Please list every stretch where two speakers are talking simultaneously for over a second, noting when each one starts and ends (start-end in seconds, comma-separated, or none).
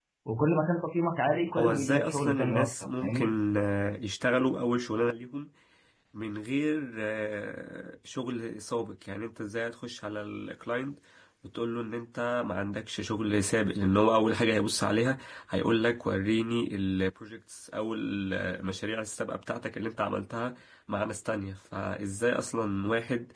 1.6-3.3